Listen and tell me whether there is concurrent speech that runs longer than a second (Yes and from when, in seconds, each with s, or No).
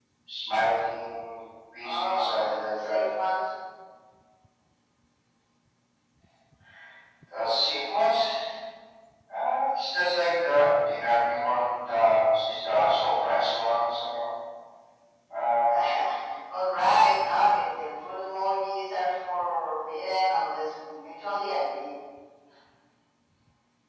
Yes, from 1.8 s